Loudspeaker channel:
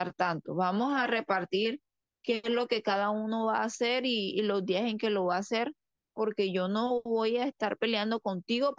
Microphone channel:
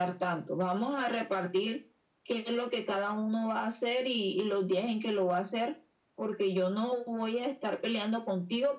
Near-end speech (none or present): none